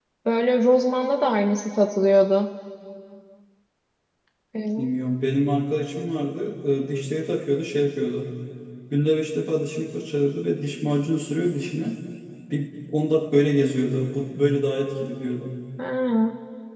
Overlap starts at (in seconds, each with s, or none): none